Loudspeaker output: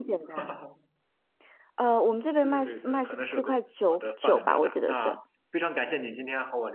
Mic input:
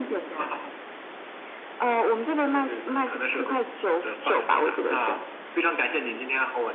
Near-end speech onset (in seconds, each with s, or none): none